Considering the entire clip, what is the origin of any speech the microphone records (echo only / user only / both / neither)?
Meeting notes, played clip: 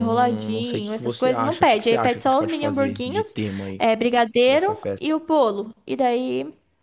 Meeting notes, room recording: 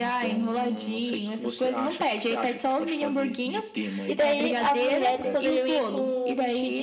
both